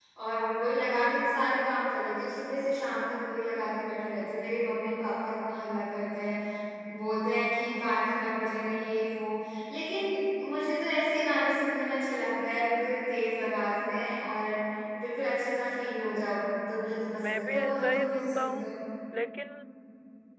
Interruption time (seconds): 17 s

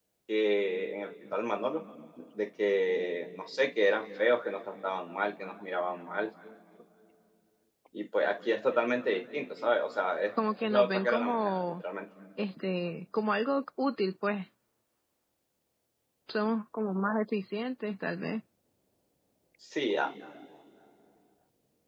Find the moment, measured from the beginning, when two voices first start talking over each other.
11 s

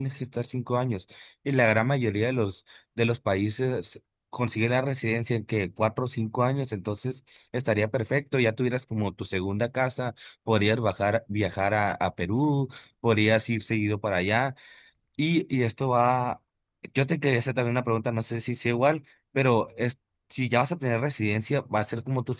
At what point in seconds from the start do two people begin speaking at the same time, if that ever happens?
none

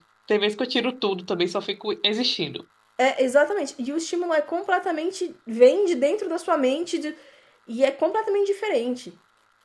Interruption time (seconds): none

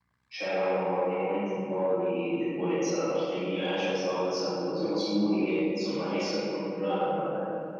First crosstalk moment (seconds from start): none

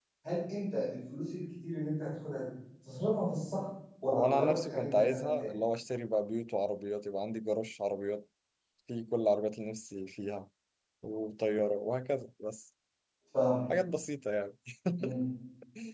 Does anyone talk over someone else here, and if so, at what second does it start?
4 s

